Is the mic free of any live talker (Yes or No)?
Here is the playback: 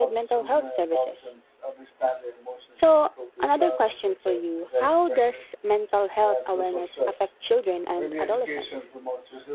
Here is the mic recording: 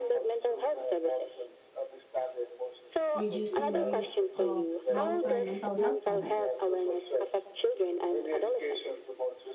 No